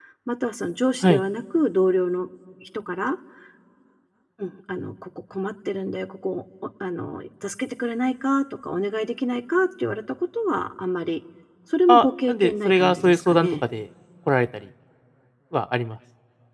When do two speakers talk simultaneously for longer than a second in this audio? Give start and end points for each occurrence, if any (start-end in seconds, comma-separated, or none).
11.9-13.6